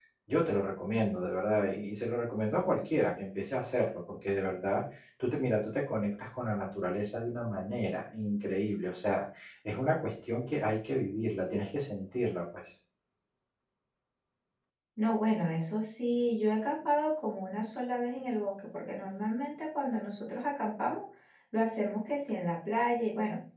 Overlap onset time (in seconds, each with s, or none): none